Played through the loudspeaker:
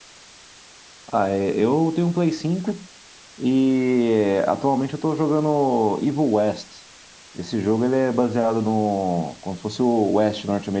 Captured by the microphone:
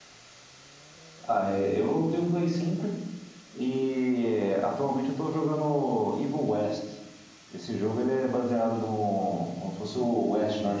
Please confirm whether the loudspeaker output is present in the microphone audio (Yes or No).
Yes